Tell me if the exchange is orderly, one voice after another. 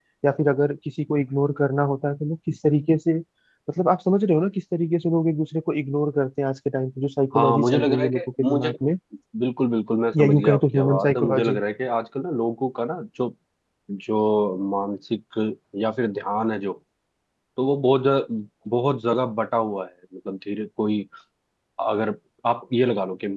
No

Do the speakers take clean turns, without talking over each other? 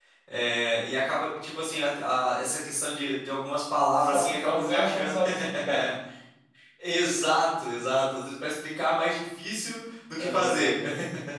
No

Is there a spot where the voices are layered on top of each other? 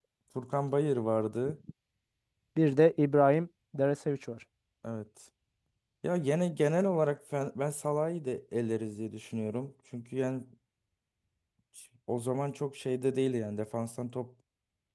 No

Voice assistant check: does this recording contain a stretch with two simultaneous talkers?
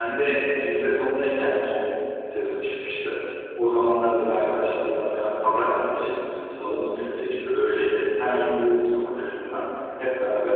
No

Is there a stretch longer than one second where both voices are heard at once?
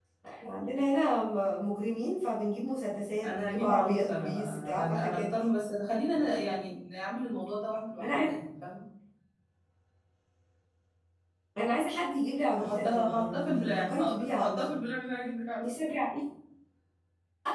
Yes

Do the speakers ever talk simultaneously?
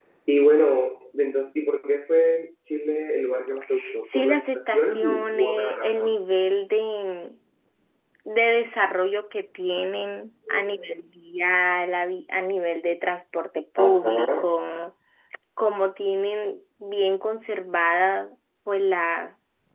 Yes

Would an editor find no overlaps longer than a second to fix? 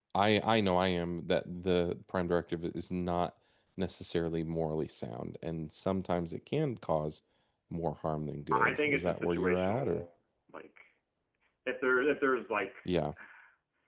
No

